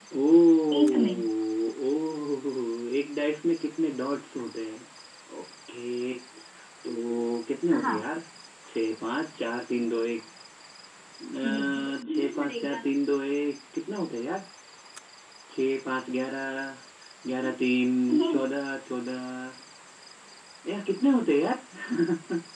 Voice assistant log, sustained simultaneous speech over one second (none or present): present